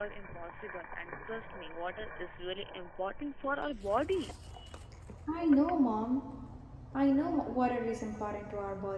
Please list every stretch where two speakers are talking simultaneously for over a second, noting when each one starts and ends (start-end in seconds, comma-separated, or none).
none